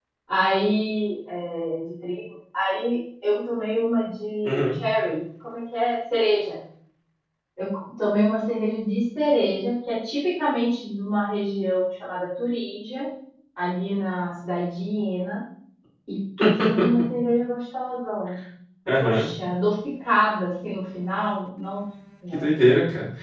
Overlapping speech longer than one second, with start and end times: none

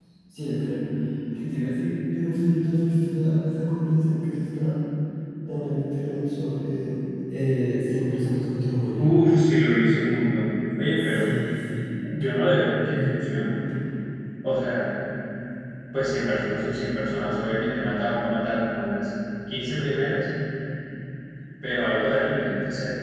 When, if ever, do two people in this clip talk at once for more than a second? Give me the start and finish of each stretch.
none

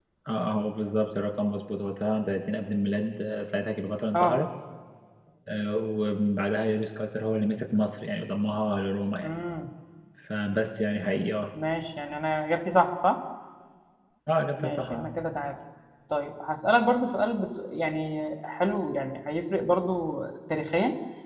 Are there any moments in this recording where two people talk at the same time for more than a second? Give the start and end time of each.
none

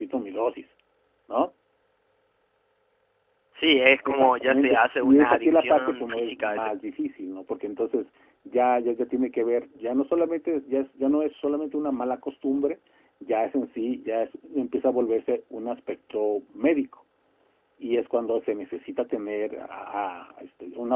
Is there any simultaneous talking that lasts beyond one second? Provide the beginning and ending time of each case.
4.1-6.7

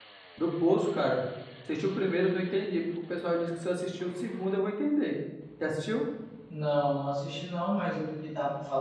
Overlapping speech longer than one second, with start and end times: none

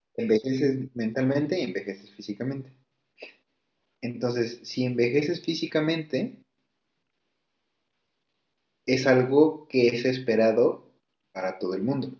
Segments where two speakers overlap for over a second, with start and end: none

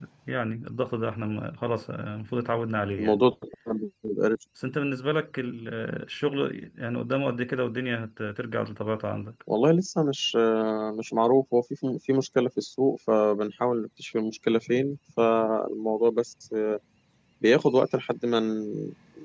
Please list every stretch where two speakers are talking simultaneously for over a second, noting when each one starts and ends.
none

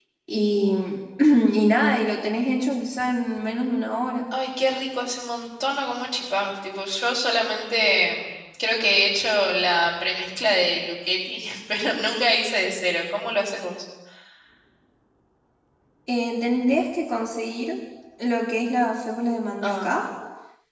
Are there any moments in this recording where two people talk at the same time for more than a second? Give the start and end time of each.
none

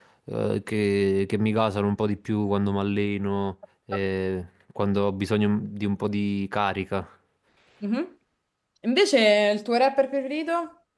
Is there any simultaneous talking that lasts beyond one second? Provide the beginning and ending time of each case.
none

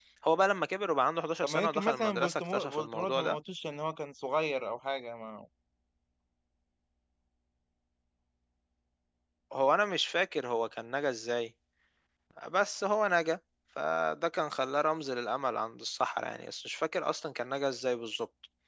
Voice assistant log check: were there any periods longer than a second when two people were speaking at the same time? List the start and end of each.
1.4-3.4

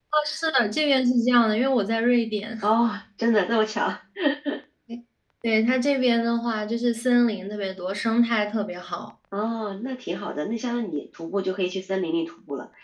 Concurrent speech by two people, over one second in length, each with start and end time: none

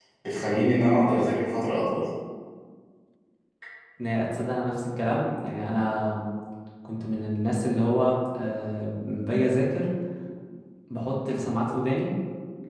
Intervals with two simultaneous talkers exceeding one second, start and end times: none

